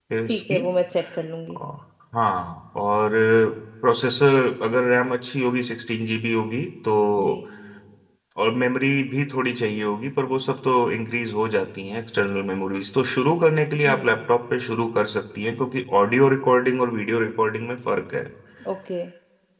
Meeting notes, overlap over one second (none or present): none